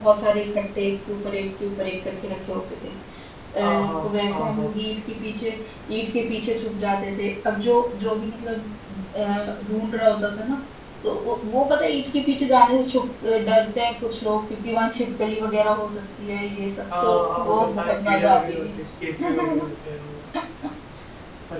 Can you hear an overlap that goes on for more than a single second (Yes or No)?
Yes